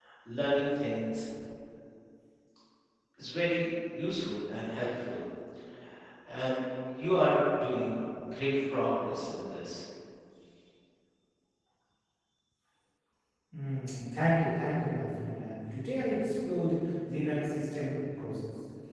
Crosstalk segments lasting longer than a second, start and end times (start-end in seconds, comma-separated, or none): none